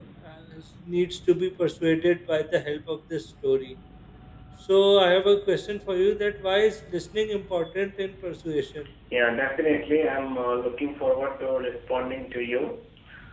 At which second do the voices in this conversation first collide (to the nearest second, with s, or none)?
none